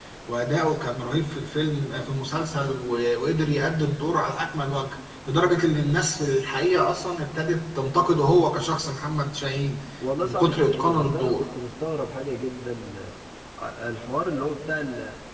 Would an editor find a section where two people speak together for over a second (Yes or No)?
Yes